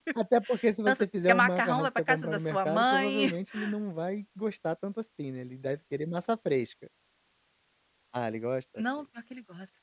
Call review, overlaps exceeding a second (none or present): present